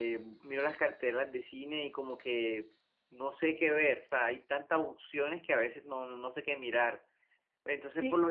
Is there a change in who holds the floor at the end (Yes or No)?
No